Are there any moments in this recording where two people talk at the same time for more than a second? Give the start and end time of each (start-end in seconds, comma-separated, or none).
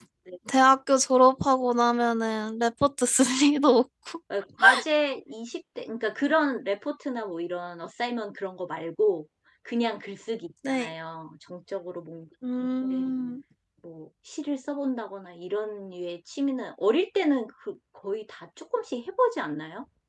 none